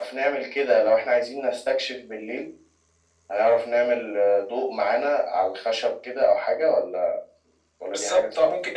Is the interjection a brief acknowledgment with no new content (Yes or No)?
No